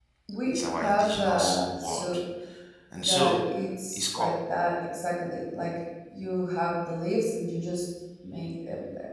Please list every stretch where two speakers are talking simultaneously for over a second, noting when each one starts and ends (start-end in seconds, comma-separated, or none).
0.5-2.0